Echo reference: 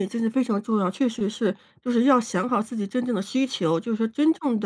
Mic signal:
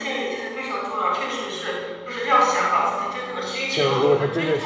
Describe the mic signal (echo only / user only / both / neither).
both